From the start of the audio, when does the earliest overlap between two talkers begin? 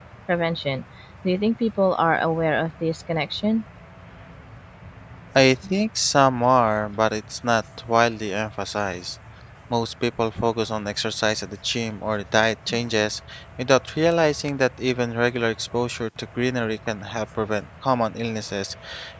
none

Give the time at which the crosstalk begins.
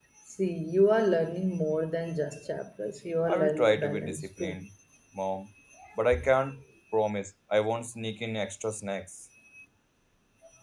3.3 s

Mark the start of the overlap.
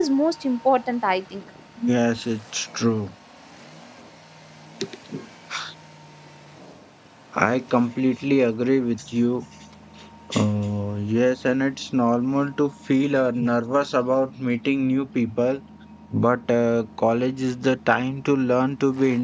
none

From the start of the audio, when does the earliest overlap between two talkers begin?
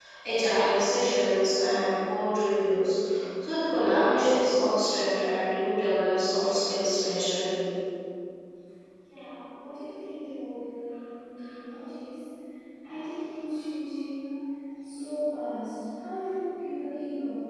none

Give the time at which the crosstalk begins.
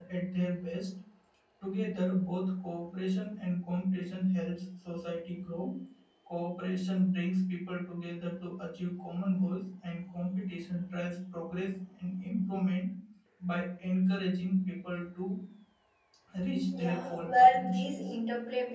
16.8 s

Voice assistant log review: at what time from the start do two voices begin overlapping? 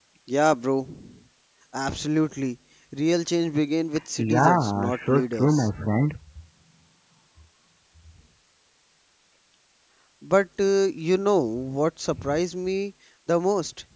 4.2 s

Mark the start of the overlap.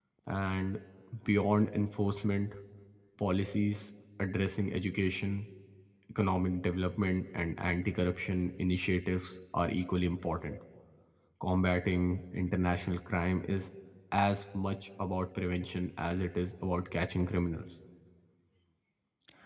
none

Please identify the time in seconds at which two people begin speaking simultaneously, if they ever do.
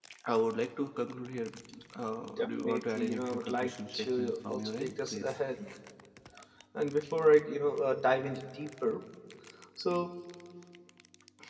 2.4 s

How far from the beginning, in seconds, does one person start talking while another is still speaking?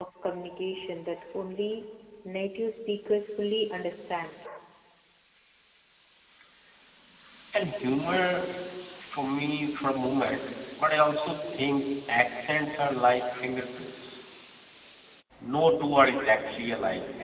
none

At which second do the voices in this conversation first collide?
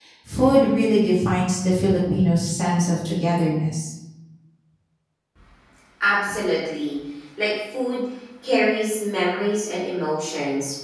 none

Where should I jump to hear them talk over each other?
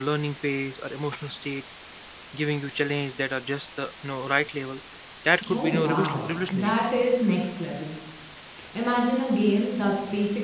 5.5 s

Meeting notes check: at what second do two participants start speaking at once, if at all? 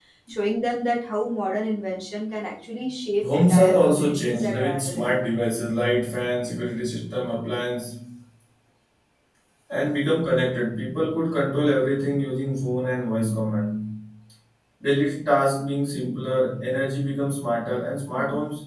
3.2 s

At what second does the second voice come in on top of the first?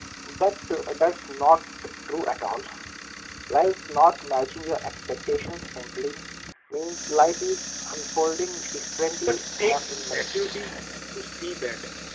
9.2 s

